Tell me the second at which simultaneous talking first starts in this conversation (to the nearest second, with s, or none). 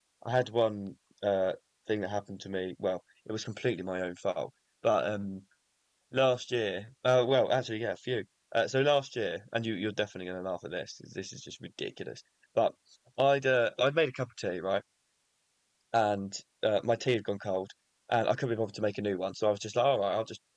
none